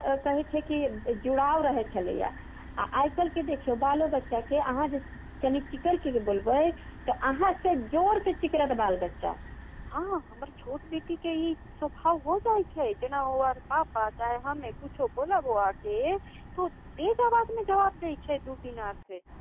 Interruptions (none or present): none